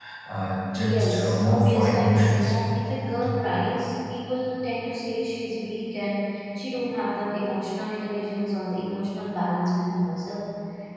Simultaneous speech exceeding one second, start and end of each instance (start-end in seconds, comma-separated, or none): 0.8-2.5